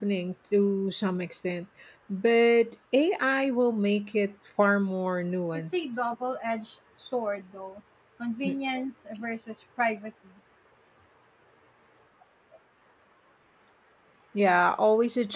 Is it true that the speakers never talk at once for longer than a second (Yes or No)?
Yes